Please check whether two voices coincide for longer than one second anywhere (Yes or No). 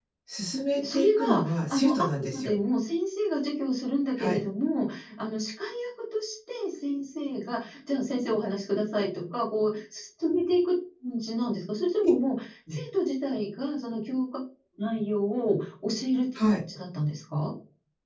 Yes